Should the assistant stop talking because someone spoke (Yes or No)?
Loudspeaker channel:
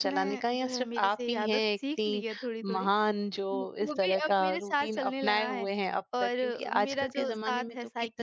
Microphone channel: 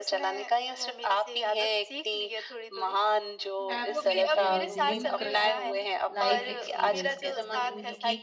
Yes